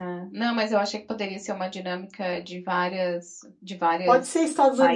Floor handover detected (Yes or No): Yes